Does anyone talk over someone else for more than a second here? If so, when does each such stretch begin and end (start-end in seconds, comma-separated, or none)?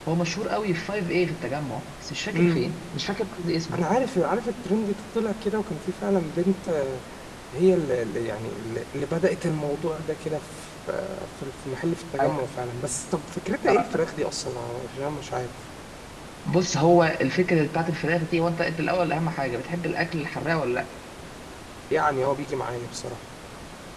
none